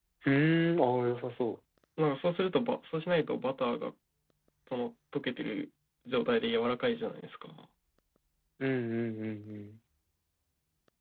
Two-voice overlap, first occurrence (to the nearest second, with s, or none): none